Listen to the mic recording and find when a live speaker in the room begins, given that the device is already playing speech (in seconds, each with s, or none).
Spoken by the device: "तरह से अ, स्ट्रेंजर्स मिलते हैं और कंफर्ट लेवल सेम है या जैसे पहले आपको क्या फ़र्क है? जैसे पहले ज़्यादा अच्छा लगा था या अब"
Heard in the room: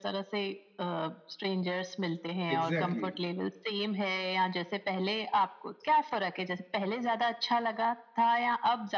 2.5 s